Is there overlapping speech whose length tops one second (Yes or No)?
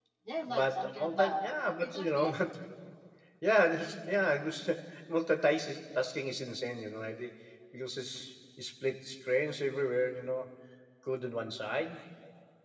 Yes